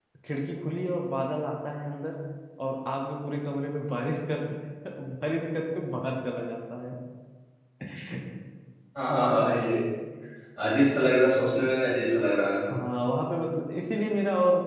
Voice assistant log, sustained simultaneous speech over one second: none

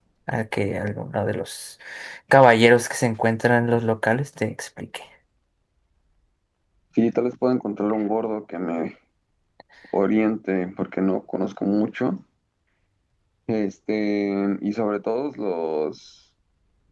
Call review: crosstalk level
none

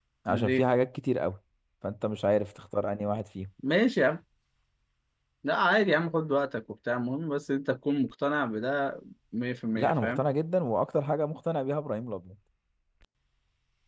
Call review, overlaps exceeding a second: none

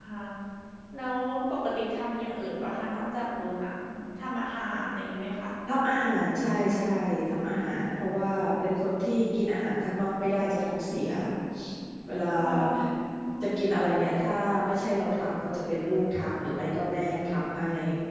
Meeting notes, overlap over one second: none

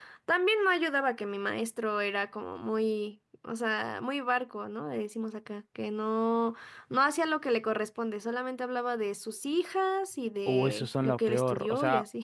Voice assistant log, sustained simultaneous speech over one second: present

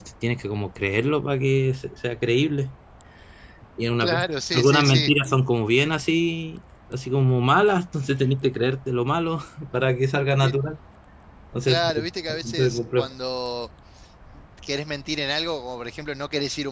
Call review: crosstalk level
present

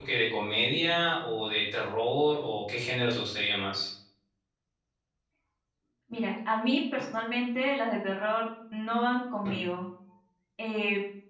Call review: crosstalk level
none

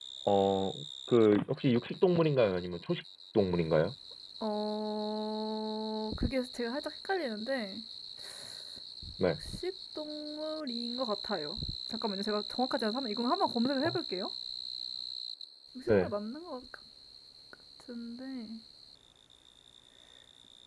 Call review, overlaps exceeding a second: none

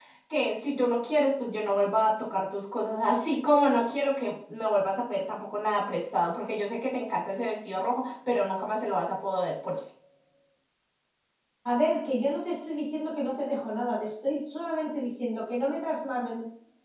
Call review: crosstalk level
none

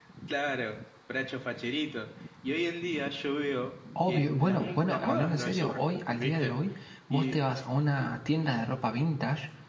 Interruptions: present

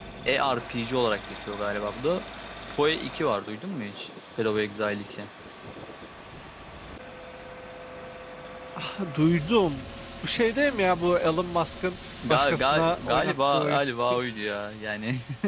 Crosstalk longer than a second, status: present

